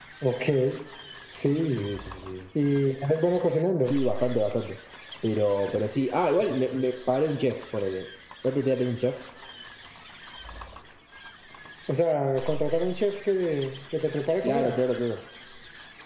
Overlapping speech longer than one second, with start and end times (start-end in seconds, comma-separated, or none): none